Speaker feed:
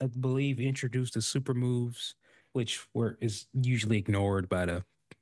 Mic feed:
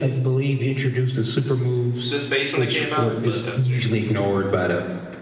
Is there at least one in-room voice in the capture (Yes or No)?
Yes